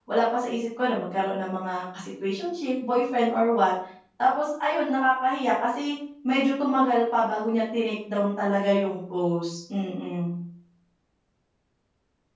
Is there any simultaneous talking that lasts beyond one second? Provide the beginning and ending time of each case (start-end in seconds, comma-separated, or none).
none